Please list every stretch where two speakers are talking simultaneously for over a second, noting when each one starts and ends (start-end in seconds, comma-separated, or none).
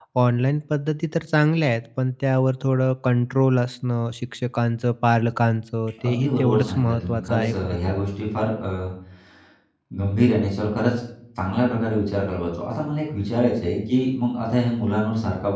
6.0-8.0